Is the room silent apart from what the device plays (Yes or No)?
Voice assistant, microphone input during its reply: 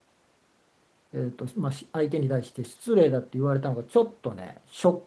No